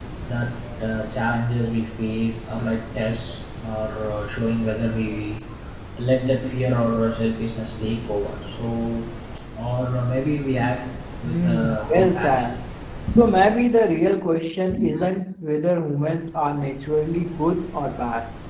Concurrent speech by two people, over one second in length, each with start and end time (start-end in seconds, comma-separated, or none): 11.2-12.6